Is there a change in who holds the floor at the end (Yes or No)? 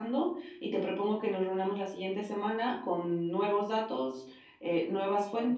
No